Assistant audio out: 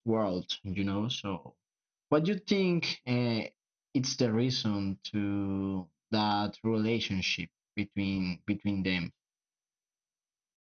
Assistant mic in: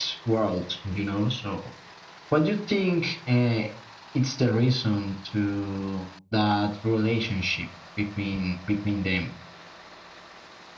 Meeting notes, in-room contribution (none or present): none